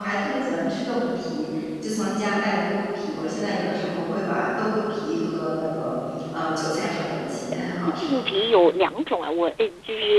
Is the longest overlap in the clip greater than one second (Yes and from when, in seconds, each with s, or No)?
No